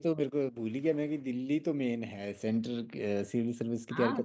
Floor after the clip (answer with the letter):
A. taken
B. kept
A